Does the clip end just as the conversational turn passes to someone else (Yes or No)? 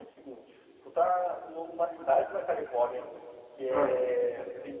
No